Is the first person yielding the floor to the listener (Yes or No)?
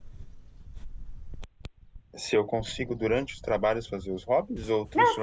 Yes